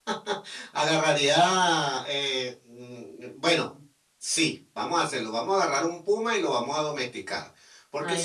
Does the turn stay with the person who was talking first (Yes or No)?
Yes